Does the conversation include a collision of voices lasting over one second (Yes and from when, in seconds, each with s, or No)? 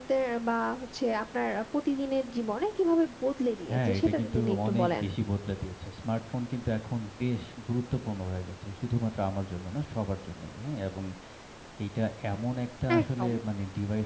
Yes, from 3.7 s